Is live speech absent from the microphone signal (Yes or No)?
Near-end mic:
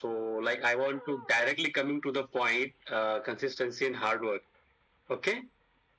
Yes